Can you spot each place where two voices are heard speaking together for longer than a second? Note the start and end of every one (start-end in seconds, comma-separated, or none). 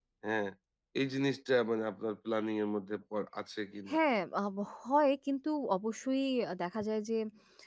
none